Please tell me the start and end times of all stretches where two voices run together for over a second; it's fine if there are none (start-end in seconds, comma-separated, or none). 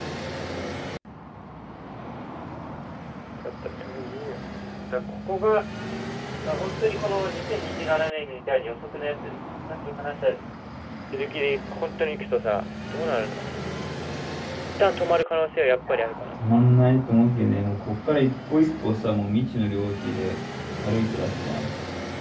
none